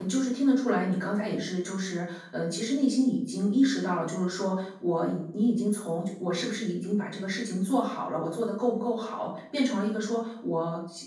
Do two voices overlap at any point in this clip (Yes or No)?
No